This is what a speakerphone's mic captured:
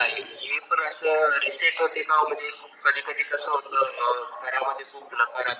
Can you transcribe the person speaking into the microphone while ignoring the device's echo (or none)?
none